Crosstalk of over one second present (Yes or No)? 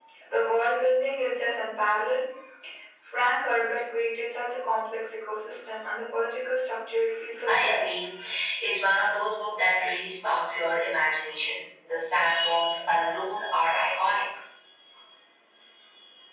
No